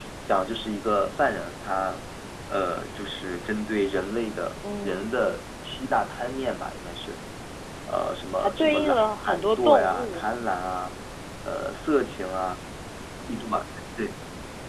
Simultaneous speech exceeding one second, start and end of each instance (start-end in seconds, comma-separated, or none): 8.4-10.4